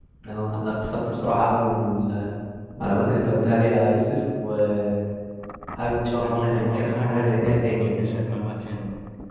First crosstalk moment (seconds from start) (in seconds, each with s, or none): 6.2 s